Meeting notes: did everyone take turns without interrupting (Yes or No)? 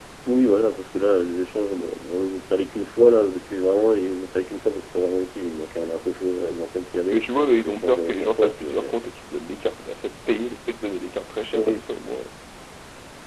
No